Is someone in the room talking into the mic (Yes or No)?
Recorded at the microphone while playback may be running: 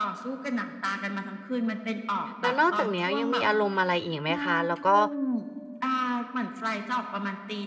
Yes